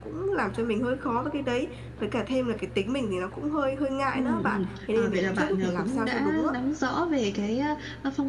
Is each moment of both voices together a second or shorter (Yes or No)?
No